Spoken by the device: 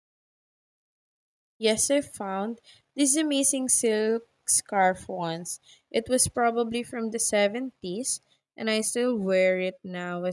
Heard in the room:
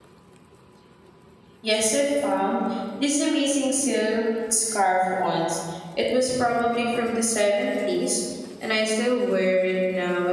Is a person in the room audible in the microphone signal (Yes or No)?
No